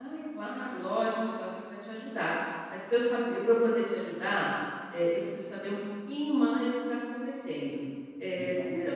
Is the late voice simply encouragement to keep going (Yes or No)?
Yes